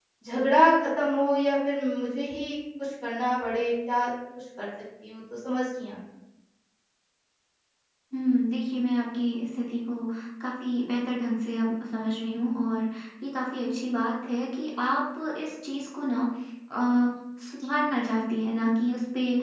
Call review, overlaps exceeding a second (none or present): none